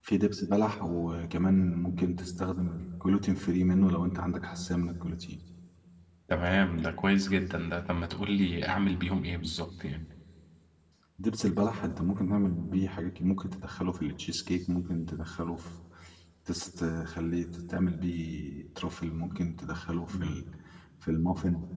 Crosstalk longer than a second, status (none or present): none